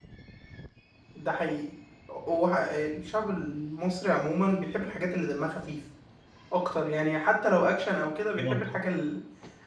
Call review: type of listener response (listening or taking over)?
listening